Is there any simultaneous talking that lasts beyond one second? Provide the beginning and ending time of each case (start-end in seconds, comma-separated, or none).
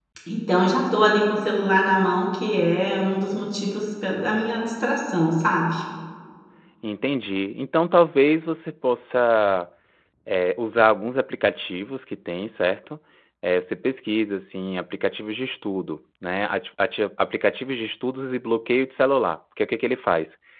none